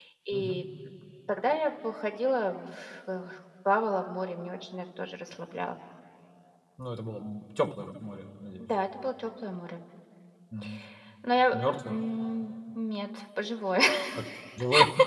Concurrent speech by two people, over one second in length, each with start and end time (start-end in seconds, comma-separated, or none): none